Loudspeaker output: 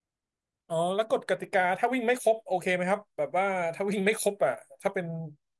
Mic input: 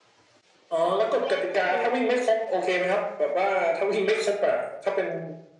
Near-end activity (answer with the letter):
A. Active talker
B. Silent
A